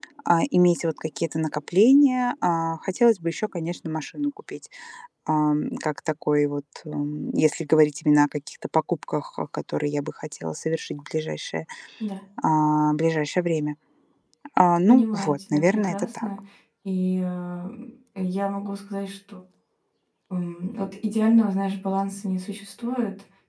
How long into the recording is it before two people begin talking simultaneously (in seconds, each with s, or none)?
14.9 s